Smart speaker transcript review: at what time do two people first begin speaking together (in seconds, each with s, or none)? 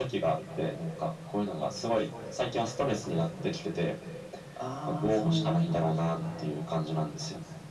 4.9 s